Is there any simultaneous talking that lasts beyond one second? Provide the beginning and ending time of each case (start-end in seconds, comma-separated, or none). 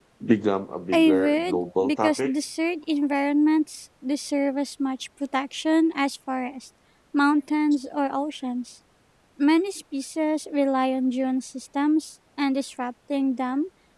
0.9-2.3